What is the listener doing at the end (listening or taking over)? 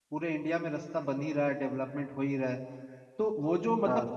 listening